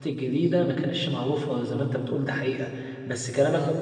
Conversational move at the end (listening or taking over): listening